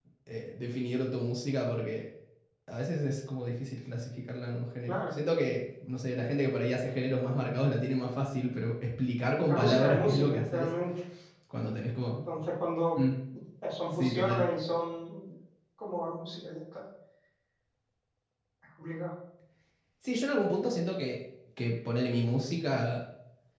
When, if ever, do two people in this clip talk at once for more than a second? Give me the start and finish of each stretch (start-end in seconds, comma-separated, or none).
9.5-10.7